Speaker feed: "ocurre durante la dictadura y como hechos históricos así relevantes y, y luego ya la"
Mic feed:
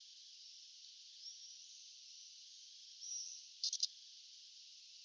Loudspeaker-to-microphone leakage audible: No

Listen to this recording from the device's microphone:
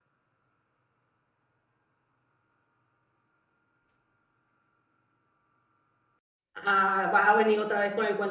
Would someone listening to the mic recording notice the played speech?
No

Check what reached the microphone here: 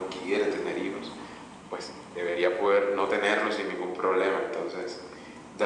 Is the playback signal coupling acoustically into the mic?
Yes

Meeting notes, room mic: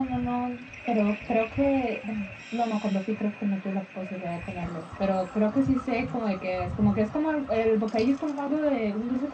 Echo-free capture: No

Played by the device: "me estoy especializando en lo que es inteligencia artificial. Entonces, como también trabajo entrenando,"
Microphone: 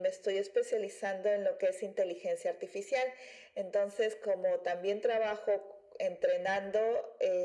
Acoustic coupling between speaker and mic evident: Yes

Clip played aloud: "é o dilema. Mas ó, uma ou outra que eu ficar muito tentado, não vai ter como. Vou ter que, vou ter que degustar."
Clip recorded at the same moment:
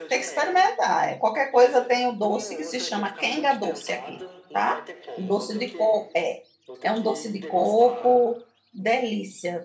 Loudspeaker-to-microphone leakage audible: Yes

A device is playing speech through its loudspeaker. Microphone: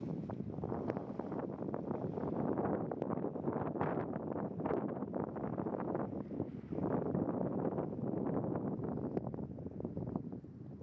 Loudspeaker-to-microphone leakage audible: No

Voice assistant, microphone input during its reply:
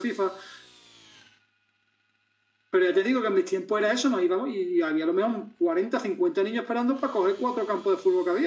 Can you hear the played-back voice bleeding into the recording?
Yes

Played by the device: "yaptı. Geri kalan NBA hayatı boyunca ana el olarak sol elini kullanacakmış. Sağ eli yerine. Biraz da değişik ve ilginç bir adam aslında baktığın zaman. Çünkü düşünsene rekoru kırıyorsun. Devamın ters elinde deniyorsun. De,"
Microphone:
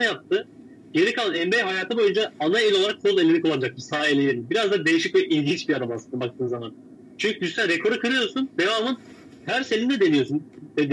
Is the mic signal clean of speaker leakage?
No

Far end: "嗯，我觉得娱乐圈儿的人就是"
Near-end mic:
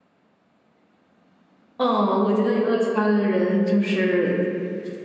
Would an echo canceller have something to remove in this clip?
Yes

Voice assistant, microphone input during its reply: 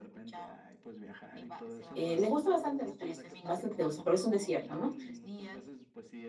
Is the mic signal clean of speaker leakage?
No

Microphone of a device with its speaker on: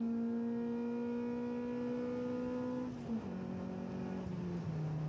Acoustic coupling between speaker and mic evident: No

